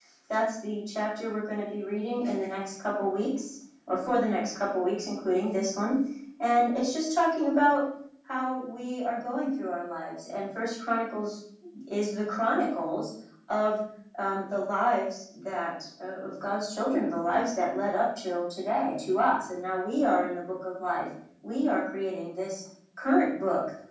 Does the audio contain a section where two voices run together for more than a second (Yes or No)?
No